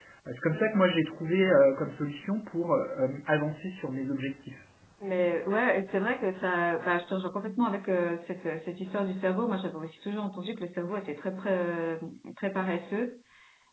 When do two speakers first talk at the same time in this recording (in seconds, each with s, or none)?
none